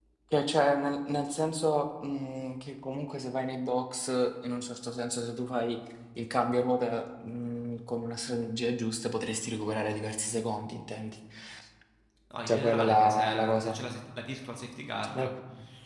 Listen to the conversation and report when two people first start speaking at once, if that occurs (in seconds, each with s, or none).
12.5 s